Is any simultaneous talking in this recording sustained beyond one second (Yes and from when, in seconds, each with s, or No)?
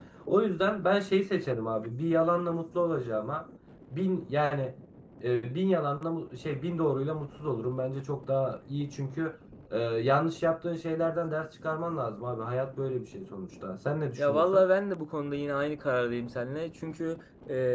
No